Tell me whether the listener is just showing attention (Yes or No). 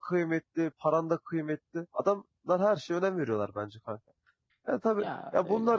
Yes